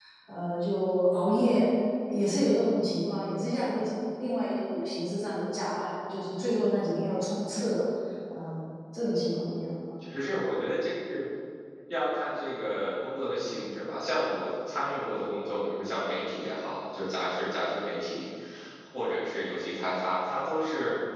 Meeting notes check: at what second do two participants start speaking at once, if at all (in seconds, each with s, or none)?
none